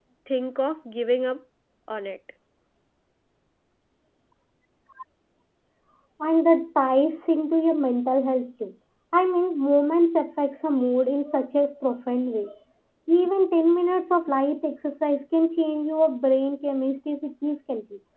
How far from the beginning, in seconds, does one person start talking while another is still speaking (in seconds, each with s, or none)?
none